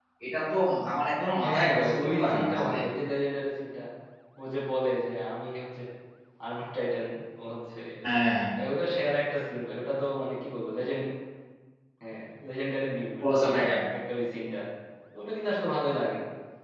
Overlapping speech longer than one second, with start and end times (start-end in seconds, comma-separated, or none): 1.4-2.8